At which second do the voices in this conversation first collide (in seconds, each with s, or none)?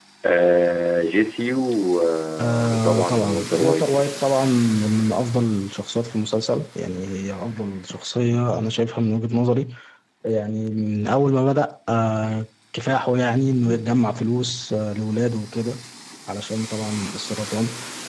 2.4 s